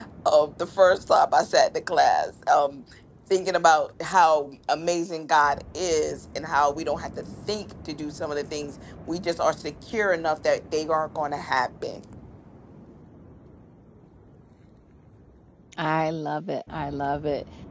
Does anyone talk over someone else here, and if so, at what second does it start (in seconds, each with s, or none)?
none